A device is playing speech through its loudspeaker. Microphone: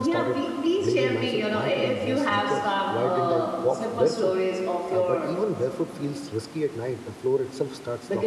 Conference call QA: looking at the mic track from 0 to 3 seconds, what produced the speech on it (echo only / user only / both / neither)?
both